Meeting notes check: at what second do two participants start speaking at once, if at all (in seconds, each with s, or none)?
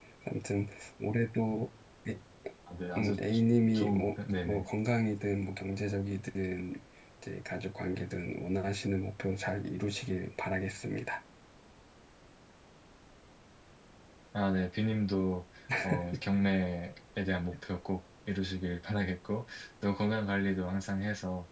3.0 s